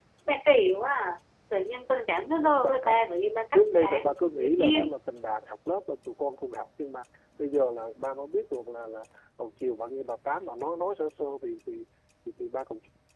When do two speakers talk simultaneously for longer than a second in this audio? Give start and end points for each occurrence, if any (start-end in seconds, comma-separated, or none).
3.5-4.9